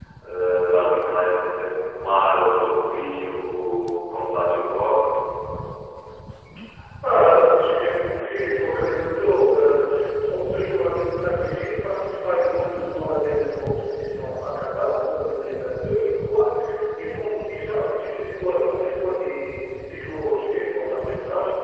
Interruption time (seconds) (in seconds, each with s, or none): none